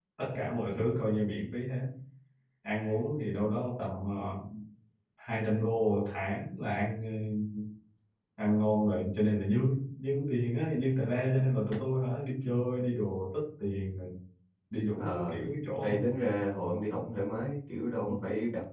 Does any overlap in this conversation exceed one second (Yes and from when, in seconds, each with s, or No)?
No